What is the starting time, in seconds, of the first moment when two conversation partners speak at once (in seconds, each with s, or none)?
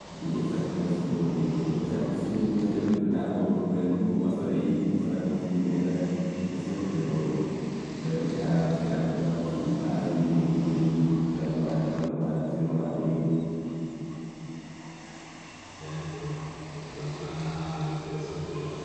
none